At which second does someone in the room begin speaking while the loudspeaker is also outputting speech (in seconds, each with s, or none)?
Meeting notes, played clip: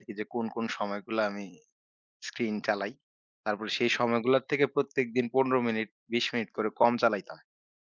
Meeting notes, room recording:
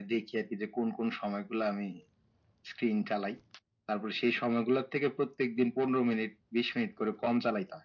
none